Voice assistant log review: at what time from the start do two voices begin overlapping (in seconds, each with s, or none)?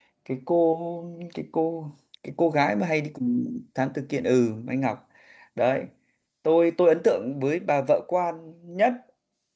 none